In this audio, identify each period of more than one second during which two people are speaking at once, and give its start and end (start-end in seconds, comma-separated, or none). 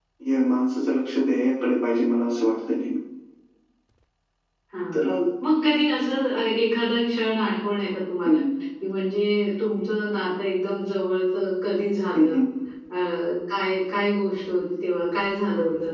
none